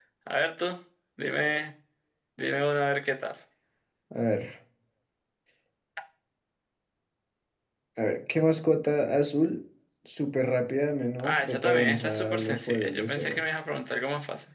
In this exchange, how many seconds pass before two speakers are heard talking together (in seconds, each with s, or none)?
11.2 s